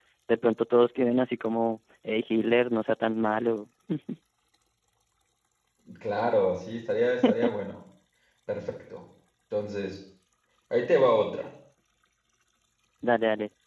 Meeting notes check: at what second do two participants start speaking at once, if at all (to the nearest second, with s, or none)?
none